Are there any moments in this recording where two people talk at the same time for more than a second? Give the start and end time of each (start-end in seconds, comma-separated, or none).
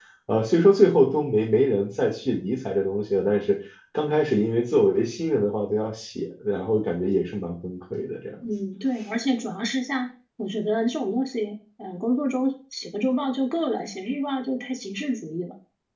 none